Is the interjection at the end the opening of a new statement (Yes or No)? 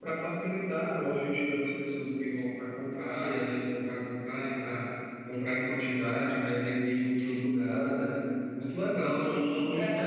Yes